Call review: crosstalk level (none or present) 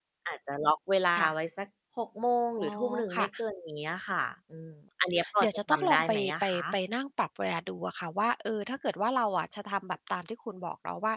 present